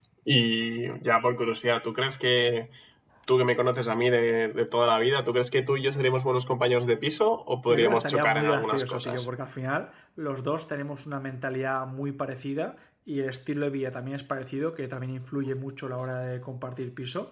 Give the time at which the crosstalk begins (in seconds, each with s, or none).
7.7 s